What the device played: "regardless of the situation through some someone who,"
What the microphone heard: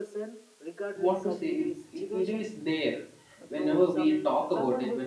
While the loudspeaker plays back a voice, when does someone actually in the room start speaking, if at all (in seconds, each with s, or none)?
1.0 s